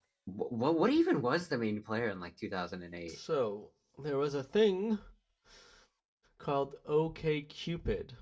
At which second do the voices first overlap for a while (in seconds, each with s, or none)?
none